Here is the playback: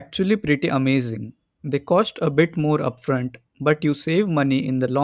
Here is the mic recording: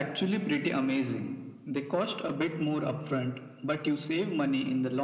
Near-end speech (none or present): none